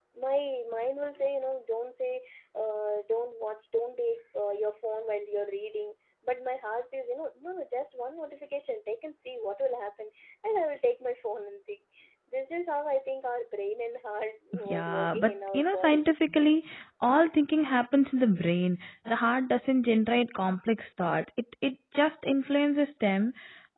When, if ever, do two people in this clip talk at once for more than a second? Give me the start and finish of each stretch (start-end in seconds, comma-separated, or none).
14.7-16.0